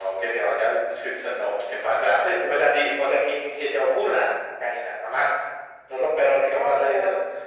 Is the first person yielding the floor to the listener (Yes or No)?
No